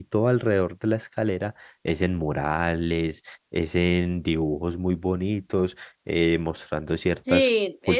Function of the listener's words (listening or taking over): taking over